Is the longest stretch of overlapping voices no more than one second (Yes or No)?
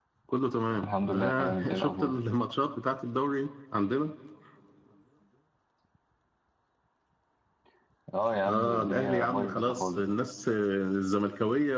No